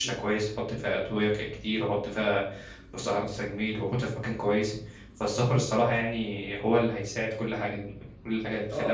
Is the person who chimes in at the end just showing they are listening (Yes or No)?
No